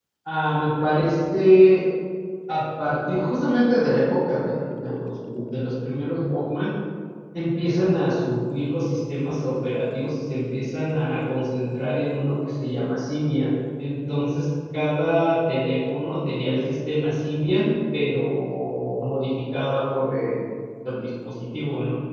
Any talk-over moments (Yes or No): No